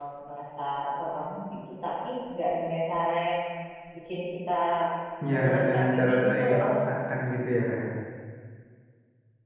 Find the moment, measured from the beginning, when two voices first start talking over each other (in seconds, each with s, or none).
5.3 s